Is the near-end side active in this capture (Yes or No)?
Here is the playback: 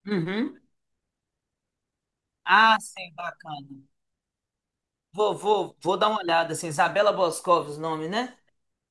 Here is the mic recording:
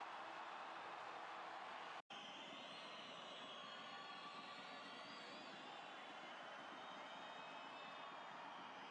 No